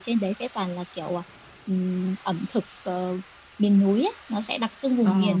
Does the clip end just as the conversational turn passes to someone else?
No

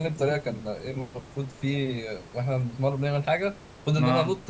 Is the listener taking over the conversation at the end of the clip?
No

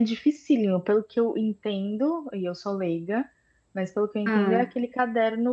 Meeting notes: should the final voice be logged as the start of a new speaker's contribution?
No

